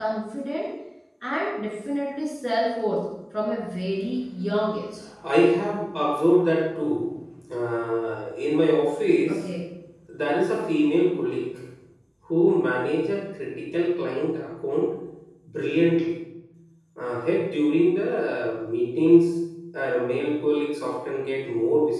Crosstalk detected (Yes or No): No